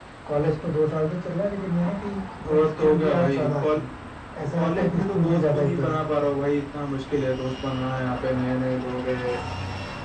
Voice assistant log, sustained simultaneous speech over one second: present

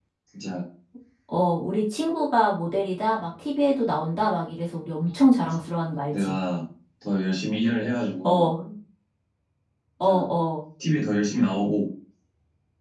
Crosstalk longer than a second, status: none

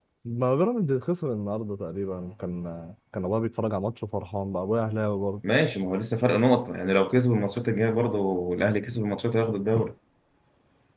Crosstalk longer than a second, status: none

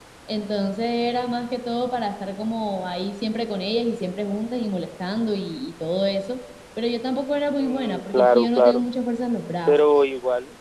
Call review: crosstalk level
present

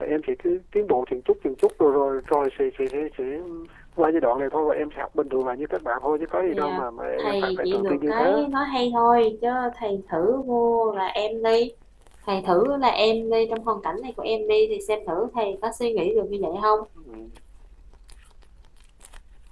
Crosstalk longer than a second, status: present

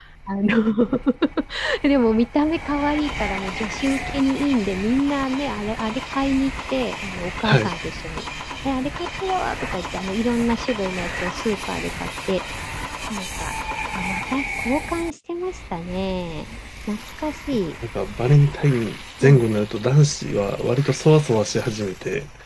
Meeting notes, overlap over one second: none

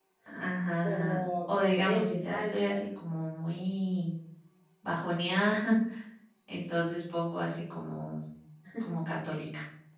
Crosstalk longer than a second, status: present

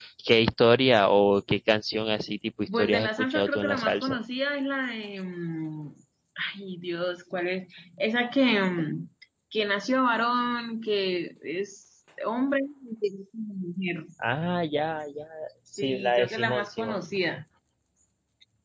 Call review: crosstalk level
present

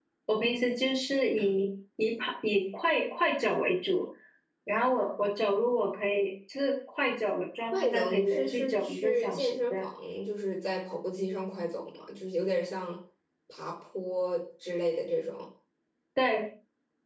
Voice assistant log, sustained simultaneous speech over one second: present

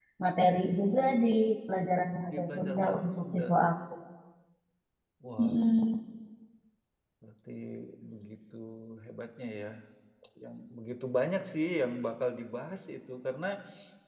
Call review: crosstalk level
present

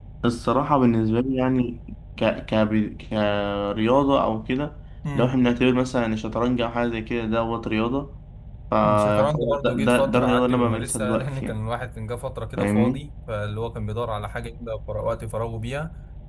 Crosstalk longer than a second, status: present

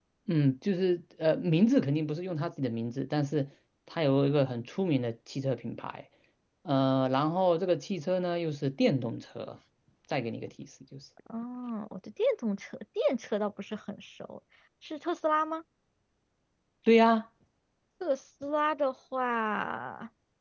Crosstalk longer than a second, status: none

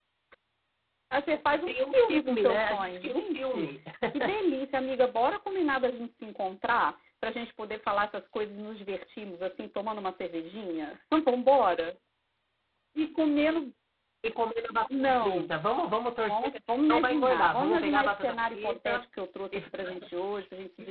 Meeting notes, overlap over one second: present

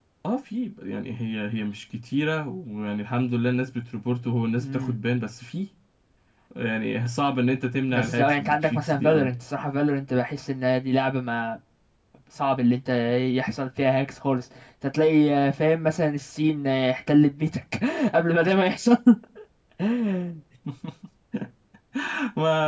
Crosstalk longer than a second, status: present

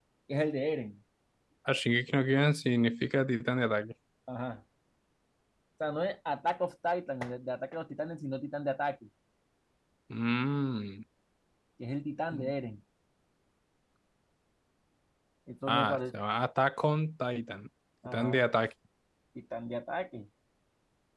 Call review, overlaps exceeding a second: none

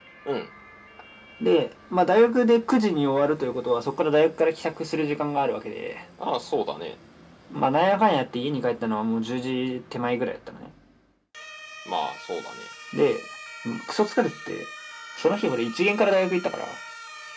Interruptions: none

